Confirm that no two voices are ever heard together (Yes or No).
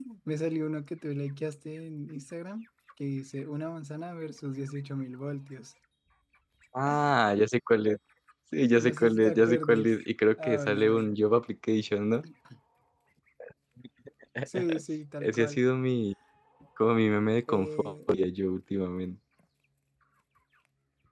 No